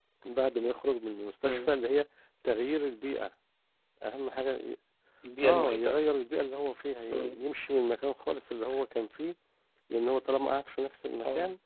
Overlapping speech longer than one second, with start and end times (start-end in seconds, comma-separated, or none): none